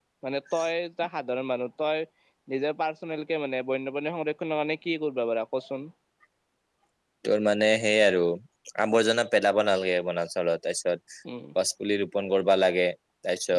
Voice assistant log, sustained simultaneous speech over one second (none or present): none